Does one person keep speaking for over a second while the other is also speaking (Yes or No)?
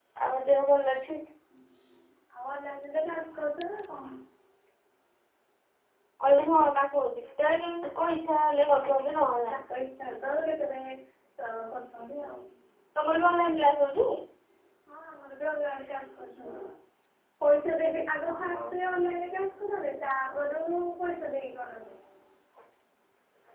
No